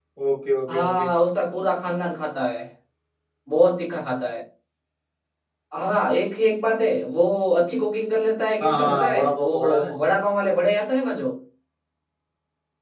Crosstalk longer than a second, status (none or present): present